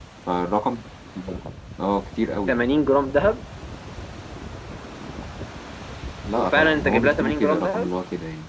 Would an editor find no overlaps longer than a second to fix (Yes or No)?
No